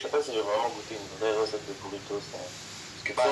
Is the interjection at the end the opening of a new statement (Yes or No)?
Yes